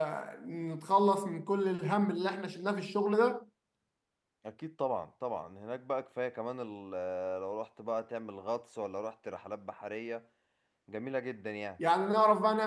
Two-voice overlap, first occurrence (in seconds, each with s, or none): none